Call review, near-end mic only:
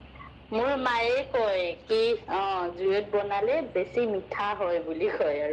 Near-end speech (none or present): none